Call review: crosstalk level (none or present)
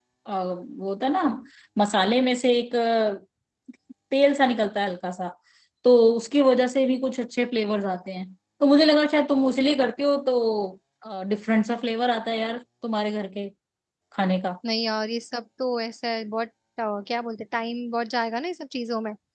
none